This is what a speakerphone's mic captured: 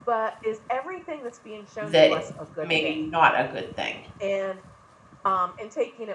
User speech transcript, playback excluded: that it's maybe not a good thing.

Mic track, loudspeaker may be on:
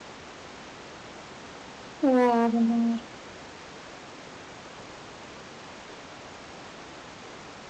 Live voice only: Iya bener.

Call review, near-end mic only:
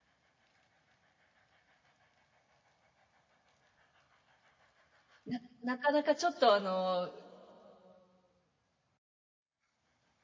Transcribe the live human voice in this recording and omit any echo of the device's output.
ななかなかちょっとあの、

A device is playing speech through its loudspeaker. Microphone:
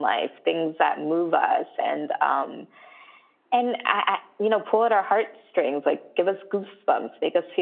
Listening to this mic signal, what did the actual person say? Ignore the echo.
none

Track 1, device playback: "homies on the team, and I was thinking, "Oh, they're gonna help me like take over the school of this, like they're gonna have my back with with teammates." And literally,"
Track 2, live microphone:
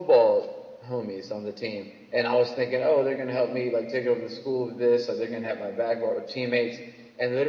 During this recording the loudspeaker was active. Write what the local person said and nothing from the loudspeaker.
none

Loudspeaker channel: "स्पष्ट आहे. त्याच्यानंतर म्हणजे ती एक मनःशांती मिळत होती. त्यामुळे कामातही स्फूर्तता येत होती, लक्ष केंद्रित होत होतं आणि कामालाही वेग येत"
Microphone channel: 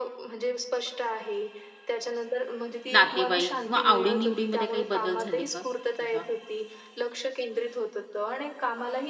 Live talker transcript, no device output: नातेवाईक किंवा आवडी-निवडीमध्ये काही बदल झाले का तुझ्या?

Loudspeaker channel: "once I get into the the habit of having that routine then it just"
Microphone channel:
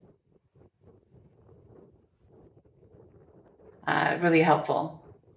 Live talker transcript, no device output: uh, really helpful

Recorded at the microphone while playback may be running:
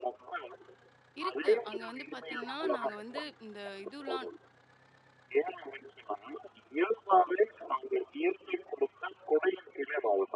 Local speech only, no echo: இருக்கு. அங்க வந்து பார்த்தீங்கன்னா, நாங்க வந்து இந்த இதுலாம்

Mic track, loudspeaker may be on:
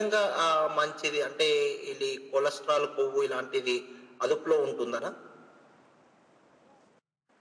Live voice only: none

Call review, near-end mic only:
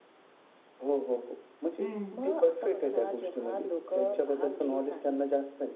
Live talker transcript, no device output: हं.

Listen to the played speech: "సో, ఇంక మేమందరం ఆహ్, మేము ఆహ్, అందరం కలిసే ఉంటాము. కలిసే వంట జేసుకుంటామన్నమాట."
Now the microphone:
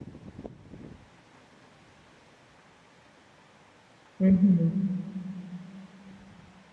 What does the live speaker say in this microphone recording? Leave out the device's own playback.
హుహు.

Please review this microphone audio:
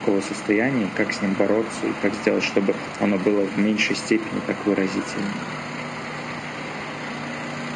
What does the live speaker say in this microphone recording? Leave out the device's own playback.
none

